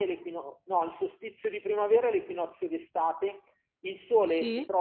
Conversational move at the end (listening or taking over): listening